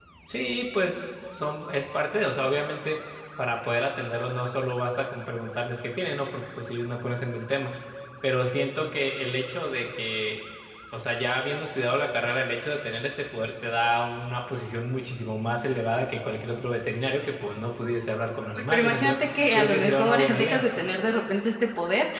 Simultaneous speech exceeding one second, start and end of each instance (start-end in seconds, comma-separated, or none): 18.7-20.6